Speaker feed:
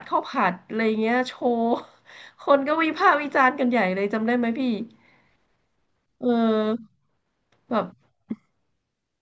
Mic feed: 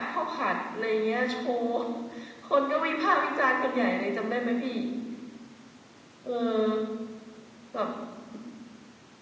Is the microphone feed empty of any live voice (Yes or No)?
Yes